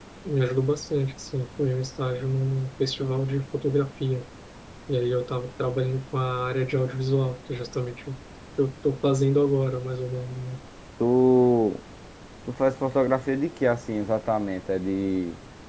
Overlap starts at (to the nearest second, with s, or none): none